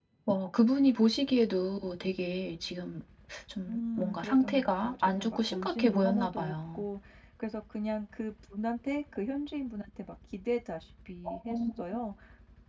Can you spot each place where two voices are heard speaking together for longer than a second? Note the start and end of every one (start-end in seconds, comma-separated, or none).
3.7-6.8